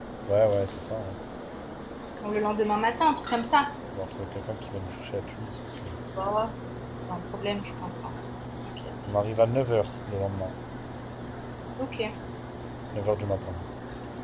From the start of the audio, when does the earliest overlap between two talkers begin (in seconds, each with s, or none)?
none